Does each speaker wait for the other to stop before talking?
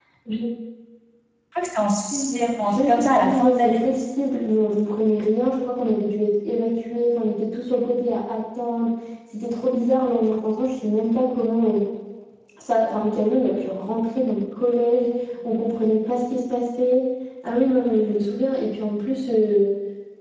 No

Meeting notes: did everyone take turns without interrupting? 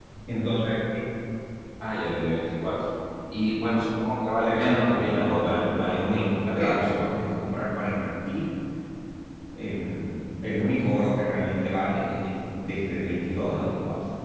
No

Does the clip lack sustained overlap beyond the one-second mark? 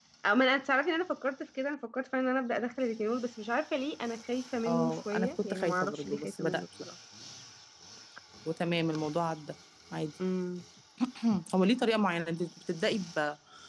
No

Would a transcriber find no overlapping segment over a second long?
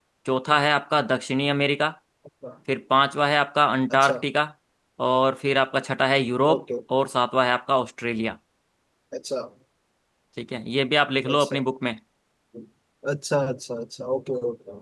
Yes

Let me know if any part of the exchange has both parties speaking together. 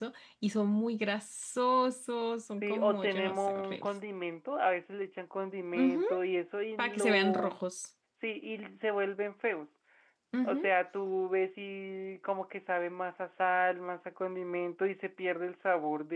Yes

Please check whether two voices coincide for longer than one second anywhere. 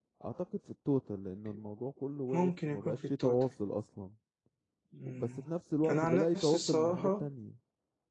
Yes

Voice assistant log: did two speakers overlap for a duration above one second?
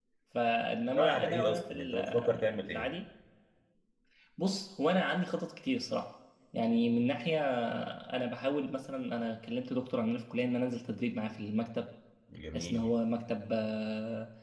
Yes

